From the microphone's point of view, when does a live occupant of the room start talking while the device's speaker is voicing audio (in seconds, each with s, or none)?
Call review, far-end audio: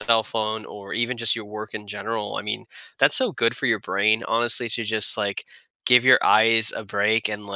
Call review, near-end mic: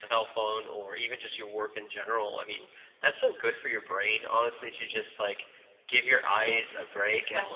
6.4 s